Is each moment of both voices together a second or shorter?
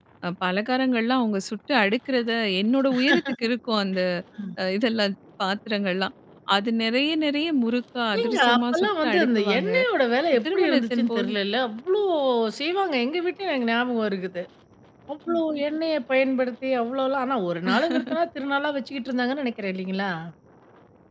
No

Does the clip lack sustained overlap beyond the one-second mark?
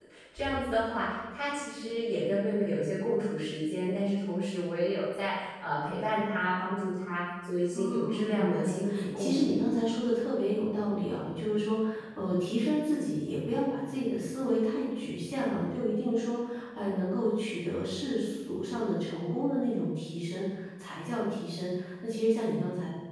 No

